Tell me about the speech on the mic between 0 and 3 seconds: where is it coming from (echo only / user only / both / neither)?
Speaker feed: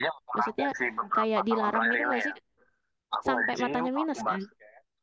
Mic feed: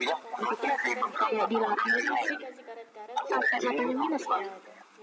both